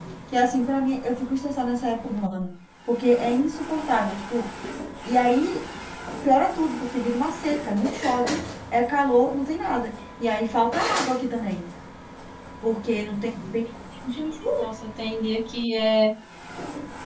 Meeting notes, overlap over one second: none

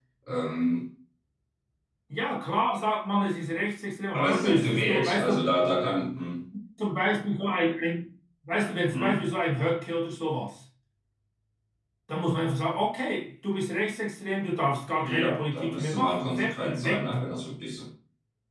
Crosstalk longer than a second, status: present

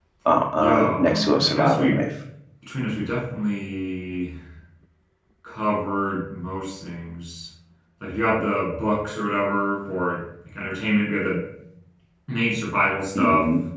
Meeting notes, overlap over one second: present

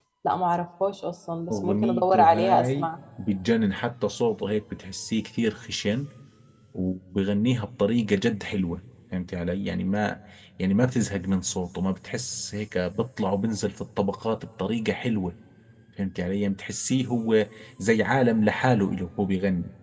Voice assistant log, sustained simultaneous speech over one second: present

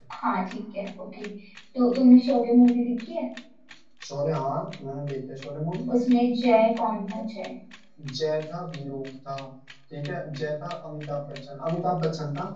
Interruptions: none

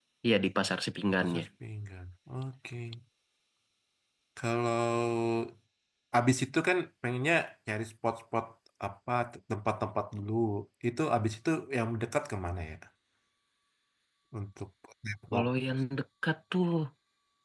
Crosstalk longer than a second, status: none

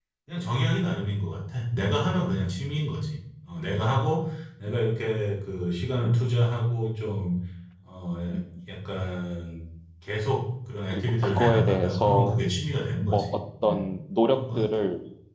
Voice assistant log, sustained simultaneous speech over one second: present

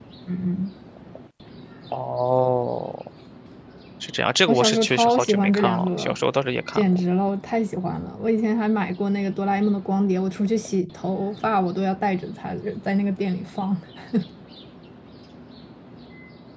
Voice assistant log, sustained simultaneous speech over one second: present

